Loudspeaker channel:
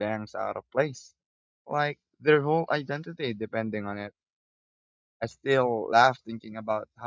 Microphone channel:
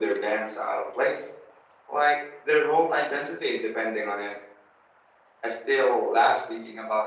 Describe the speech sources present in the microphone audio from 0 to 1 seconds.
echo only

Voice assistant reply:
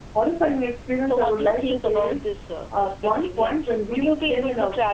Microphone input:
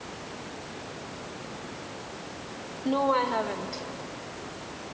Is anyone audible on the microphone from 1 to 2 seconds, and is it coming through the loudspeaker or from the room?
neither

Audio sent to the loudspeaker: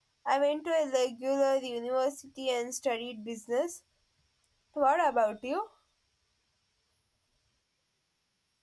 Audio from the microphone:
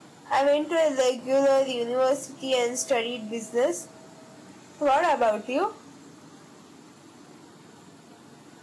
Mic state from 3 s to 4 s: echo only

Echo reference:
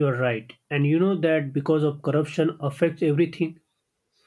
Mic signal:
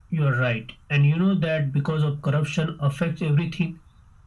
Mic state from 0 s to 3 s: echo only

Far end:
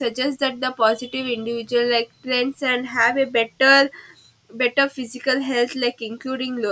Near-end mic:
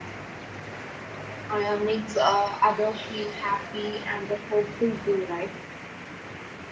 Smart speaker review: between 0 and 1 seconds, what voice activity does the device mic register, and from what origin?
neither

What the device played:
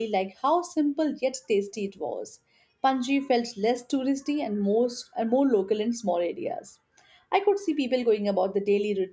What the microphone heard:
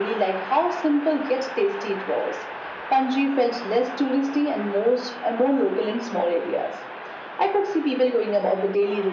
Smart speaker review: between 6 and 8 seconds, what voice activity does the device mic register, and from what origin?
echo only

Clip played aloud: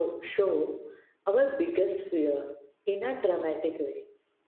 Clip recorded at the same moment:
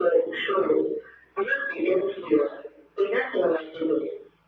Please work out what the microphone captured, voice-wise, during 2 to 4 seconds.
echo only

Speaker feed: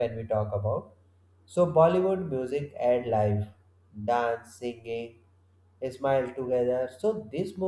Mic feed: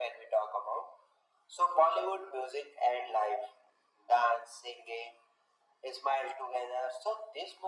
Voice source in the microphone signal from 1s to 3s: echo only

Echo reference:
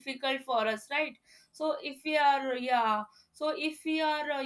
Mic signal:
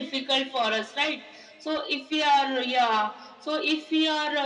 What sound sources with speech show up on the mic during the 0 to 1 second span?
echo only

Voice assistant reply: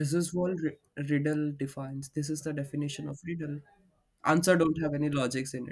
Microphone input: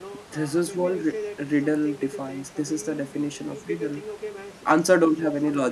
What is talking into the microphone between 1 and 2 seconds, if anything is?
both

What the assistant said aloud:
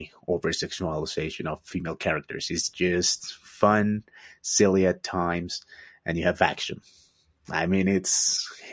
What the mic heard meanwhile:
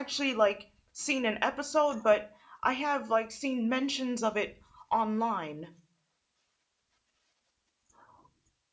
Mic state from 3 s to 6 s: user only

